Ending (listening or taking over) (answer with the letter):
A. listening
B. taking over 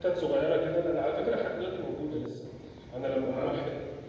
A